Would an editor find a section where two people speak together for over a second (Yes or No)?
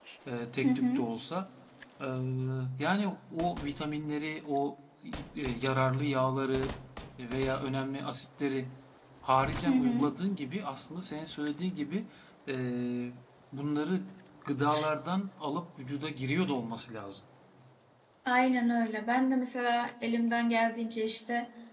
No